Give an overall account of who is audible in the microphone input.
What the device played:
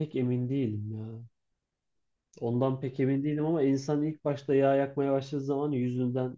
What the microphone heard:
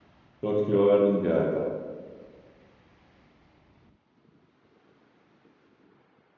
user only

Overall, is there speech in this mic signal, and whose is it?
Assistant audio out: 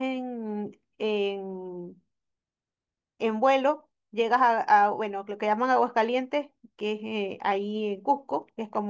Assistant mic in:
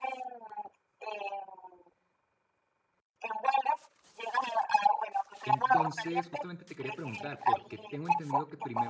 both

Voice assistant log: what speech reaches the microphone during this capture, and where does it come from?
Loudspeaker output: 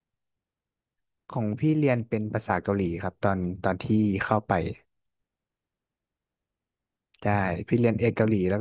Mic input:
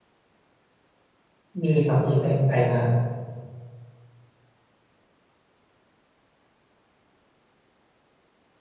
user only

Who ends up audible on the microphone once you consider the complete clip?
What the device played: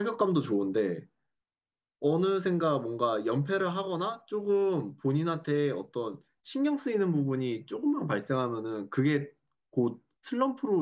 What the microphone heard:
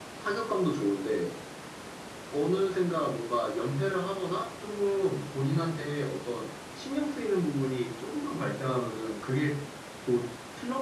echo only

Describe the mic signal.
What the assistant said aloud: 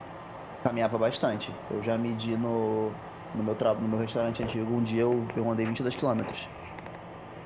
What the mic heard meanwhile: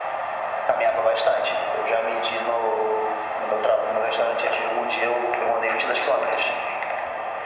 echo only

